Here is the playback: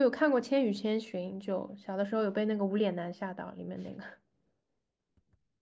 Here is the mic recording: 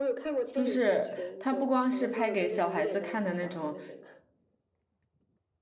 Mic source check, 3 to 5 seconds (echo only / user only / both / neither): both